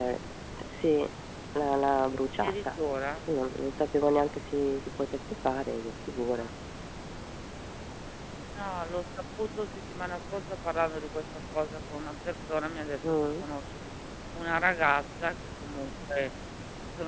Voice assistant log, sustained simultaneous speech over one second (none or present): none